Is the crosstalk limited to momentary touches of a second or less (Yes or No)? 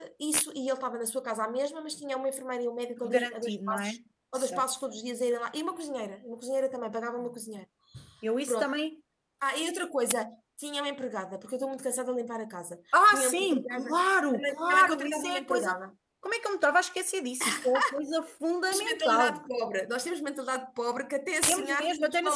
No